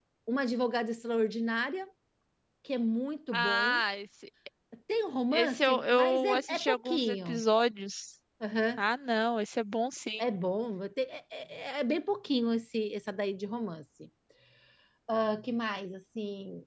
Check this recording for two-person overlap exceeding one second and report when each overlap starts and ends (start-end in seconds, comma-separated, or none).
5.3-7.4